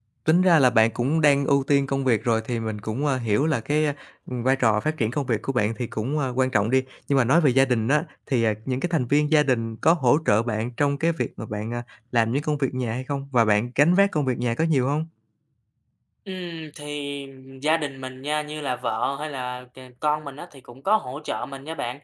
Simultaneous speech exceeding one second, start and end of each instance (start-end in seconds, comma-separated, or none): none